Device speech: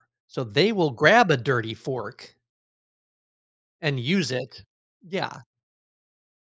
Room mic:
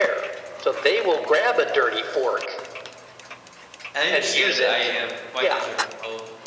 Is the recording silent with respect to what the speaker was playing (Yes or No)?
No